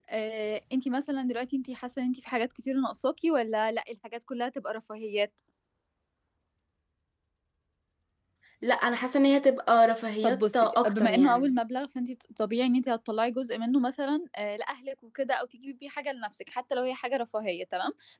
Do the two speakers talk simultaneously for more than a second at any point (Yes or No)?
Yes